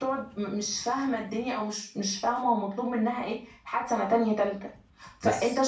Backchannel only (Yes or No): Yes